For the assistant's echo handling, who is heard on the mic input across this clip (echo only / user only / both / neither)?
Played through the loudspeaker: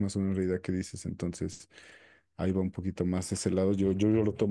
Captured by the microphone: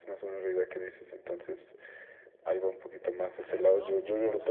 both